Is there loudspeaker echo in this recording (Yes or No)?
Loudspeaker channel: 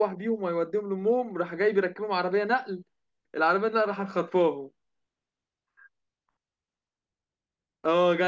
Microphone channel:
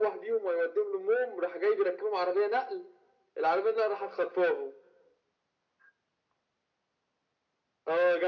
Yes